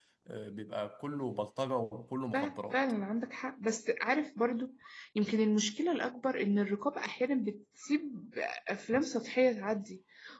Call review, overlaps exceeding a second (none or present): none